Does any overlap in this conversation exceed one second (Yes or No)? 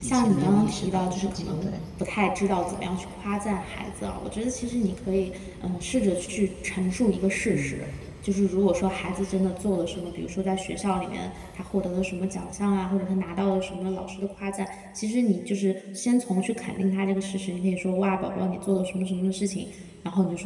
Yes